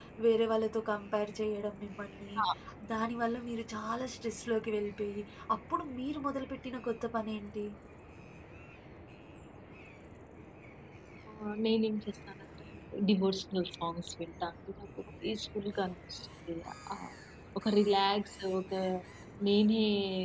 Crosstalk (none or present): none